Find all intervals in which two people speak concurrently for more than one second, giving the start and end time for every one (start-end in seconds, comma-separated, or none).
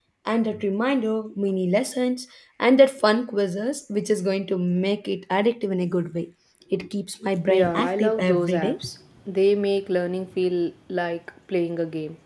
7.5-8.8